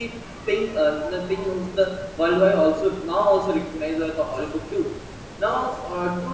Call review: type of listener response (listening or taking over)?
listening